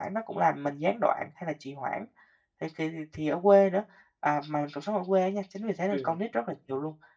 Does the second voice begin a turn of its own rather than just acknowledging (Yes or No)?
No